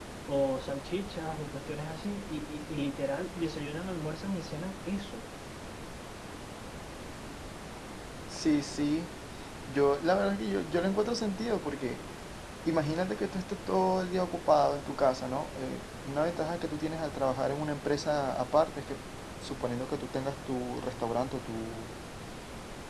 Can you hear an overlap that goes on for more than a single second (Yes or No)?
No